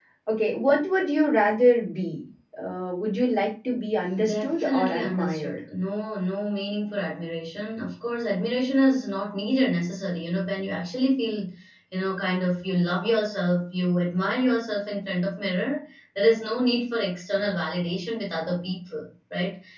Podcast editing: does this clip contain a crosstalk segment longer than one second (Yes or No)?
Yes